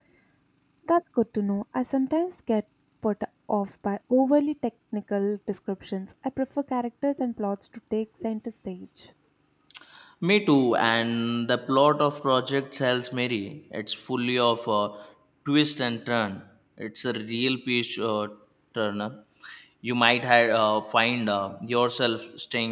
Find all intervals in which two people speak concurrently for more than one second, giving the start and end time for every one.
none

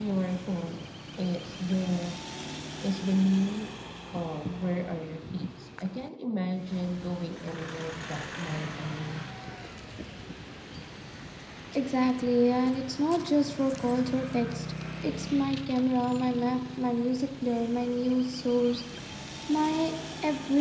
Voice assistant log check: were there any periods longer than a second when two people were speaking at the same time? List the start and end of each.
none

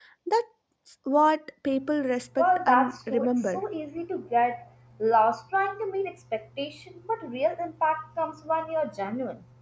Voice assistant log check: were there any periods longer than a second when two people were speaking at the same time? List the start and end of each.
2.4-3.6

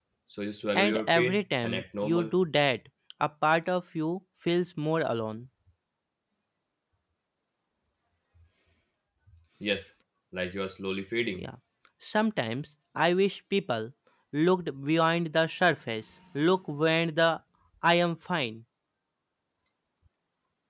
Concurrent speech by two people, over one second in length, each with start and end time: 0.8-2.3

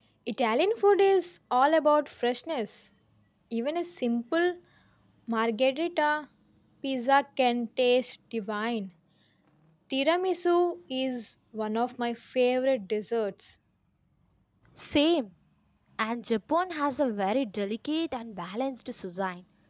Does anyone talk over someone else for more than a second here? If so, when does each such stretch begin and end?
none

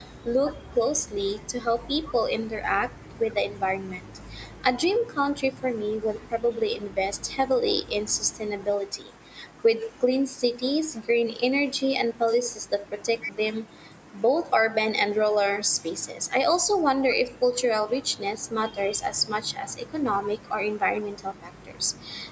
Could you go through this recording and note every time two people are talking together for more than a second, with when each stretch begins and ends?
none

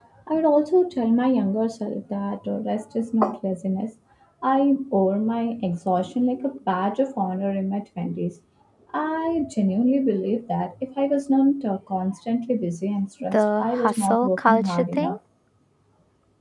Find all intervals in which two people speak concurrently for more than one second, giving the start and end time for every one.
13.3-15.2

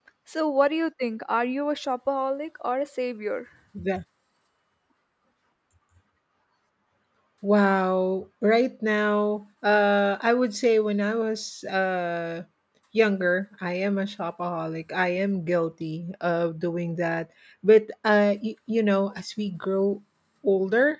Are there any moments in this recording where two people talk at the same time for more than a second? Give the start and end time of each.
none

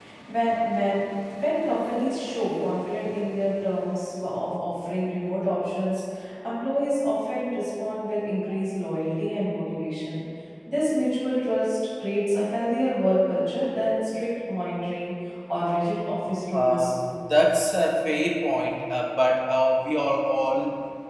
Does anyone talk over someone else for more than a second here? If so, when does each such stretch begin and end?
none

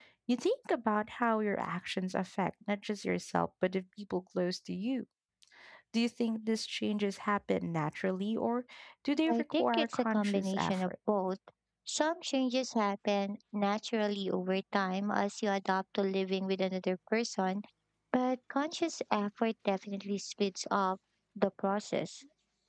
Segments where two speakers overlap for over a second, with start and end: 9.3-10.9

